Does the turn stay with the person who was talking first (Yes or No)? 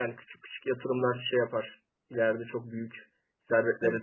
No